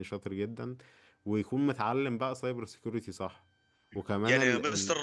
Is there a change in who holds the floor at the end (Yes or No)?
Yes